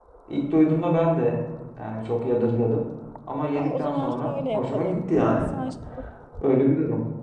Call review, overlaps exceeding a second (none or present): present